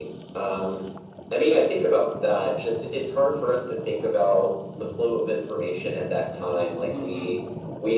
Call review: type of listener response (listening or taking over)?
listening